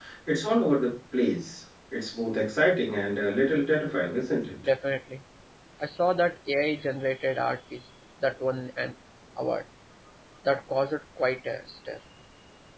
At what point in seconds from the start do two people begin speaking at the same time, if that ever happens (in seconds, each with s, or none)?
none